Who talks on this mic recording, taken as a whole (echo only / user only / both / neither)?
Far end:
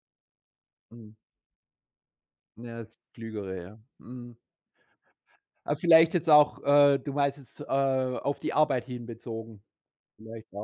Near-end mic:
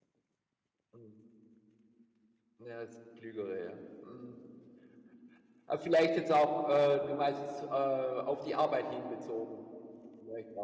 echo only